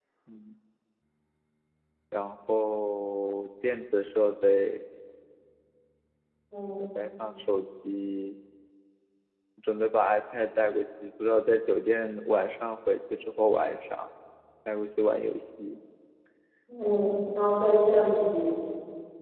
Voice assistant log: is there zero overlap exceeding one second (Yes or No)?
Yes